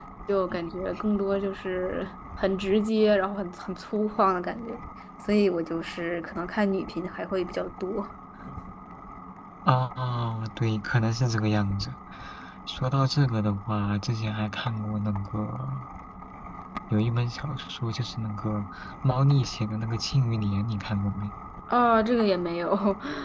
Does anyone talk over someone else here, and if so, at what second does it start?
none

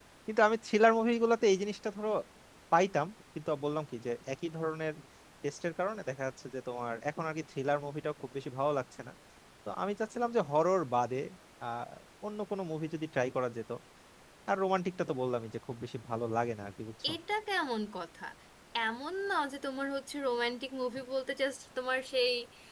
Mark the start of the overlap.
none

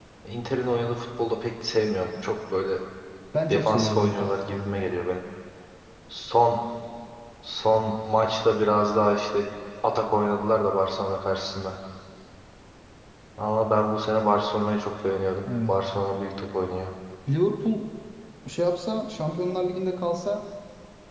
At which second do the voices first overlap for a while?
3.5 s

